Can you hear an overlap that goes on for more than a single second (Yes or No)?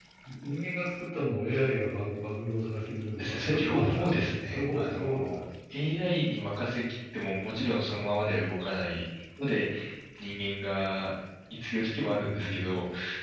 Yes